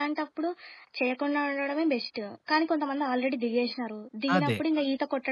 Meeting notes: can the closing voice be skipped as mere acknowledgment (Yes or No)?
Yes